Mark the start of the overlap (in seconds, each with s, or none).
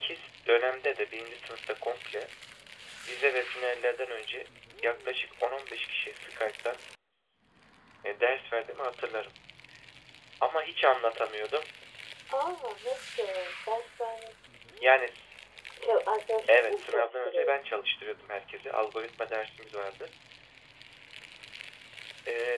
16.5 s